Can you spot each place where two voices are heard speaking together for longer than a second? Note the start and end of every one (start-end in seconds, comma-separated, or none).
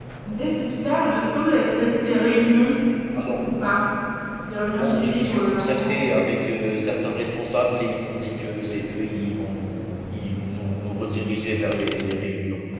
4.6-5.9